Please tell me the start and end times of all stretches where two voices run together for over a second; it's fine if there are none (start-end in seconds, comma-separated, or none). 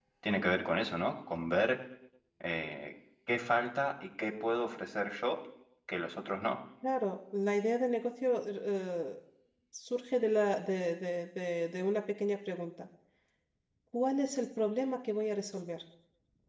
none